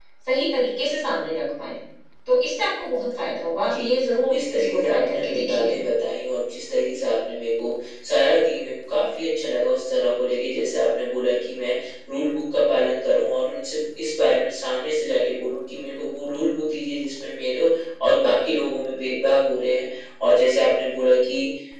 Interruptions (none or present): present